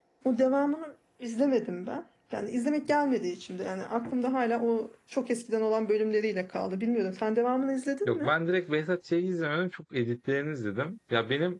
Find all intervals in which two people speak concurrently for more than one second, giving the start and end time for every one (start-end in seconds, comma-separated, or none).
none